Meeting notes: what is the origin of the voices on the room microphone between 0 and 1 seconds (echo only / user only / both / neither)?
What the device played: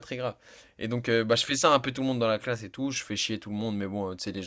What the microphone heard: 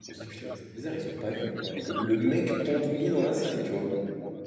both